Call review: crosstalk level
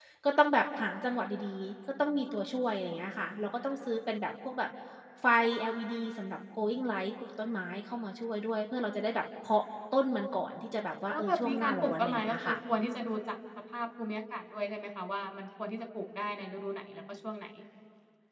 present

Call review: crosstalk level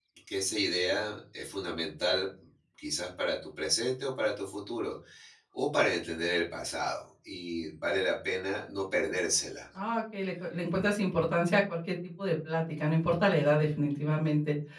none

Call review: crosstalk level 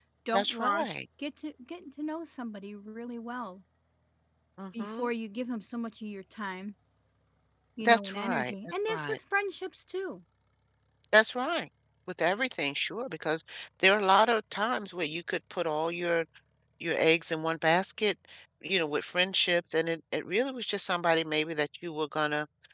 present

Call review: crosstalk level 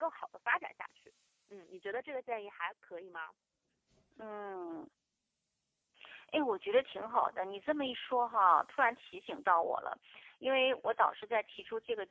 none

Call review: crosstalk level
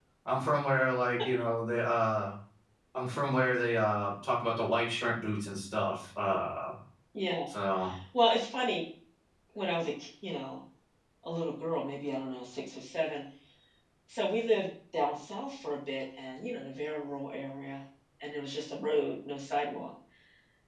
none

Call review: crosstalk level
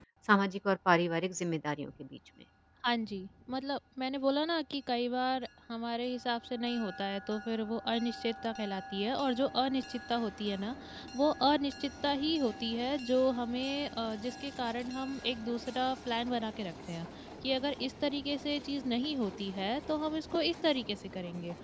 none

